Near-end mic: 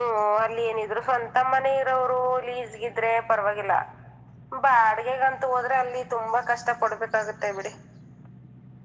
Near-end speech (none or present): none